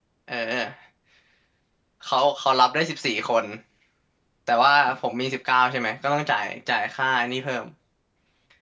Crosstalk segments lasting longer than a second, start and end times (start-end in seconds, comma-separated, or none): none